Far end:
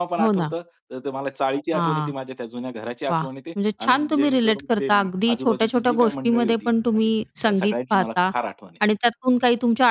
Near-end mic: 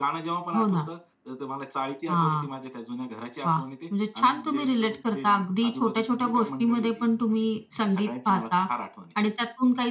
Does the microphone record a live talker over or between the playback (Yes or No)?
No